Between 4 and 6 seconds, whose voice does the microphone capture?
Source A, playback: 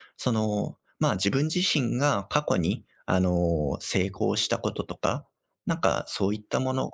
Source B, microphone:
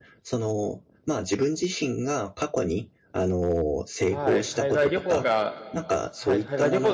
both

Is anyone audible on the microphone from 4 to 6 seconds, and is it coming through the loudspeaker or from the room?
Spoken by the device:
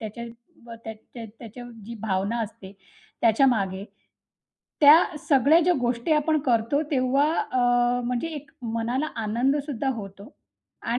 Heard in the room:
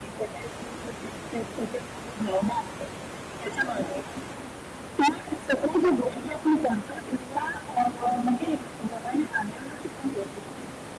echo only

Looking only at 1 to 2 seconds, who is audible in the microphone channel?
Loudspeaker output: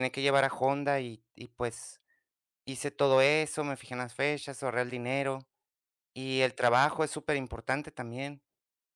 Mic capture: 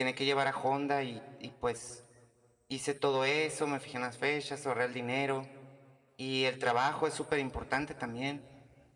echo only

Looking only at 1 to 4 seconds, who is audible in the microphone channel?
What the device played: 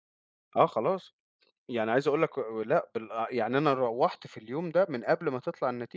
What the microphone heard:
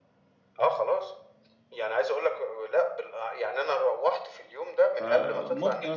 echo only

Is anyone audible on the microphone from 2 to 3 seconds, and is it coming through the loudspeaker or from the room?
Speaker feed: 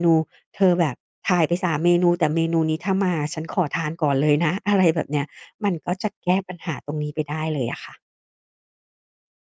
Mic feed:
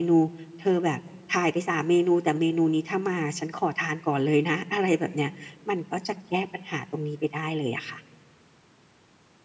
echo only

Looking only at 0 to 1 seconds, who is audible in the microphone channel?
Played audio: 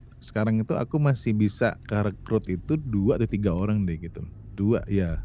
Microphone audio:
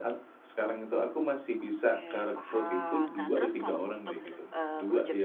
echo only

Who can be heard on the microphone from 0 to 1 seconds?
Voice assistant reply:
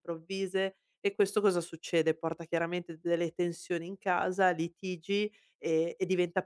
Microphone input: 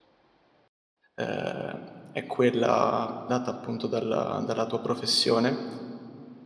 neither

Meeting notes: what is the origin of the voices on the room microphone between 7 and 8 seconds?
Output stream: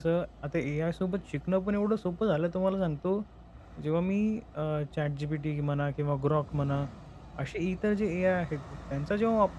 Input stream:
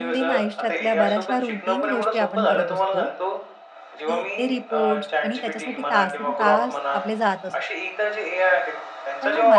both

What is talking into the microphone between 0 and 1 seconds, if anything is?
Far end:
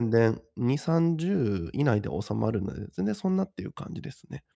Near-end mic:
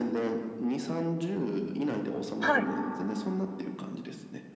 echo only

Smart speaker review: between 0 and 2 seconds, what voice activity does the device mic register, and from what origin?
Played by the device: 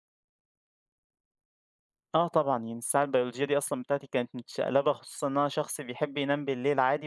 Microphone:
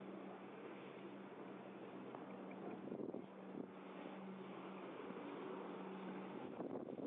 neither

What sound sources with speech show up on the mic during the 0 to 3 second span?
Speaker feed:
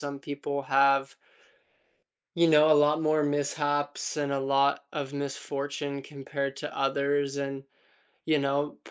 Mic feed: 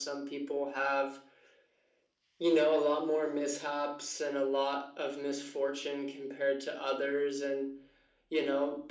echo only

